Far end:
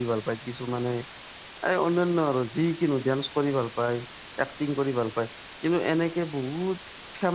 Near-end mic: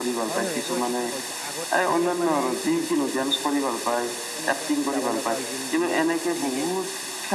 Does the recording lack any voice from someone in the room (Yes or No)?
No